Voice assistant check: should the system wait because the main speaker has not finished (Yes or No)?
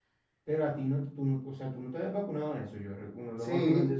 No